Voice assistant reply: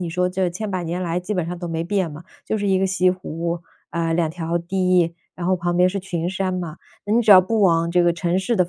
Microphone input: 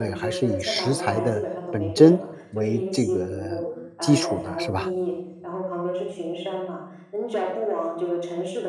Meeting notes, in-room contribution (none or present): present